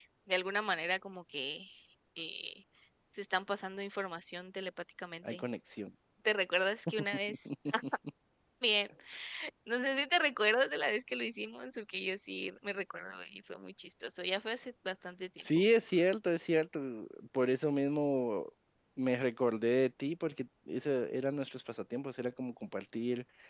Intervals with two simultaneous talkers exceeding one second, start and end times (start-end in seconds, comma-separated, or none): none